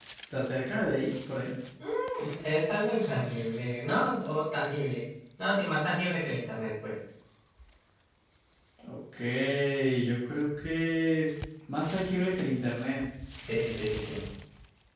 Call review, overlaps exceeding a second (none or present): none